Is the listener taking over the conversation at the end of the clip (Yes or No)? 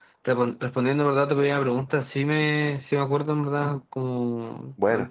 No